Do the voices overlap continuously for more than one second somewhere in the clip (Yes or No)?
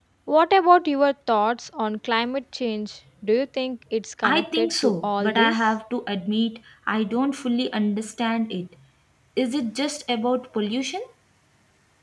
Yes